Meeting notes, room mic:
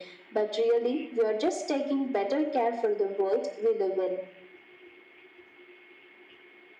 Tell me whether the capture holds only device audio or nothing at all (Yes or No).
Yes